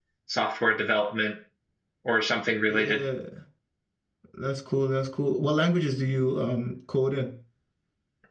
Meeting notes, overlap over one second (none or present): none